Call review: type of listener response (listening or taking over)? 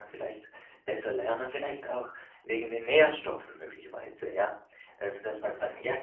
listening